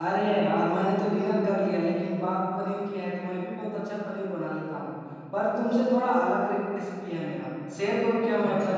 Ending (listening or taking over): taking over